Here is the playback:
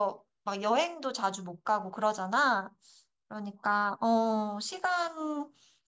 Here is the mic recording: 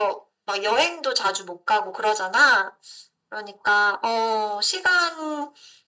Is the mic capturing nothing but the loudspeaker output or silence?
Yes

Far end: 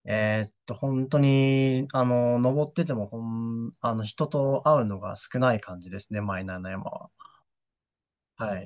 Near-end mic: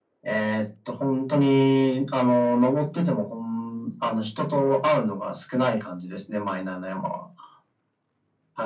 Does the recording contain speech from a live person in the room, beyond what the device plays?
No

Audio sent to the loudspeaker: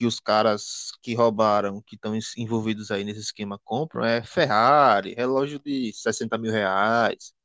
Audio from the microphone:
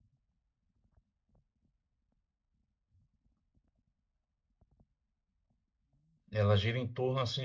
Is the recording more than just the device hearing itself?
Yes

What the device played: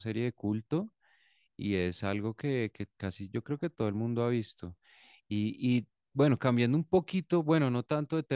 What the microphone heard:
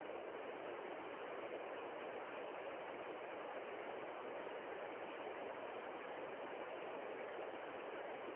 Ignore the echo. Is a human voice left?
No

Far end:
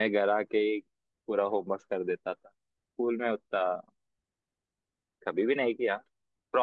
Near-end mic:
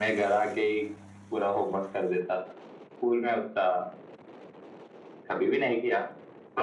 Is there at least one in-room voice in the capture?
No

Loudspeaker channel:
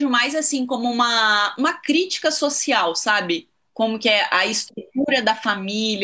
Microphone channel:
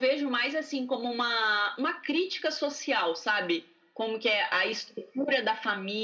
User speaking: No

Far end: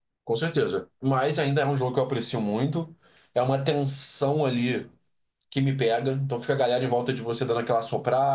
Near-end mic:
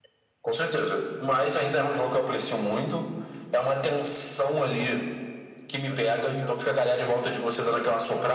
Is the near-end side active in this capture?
Yes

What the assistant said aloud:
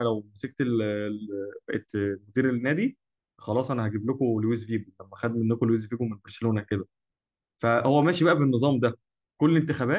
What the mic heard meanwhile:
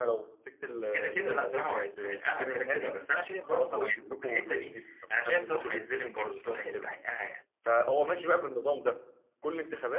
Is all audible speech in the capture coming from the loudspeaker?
No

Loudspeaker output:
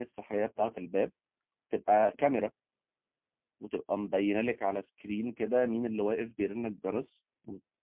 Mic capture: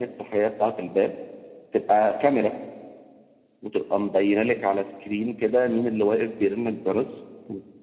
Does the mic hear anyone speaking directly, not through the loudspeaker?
No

